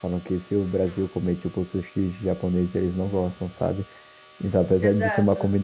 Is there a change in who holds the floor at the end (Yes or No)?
No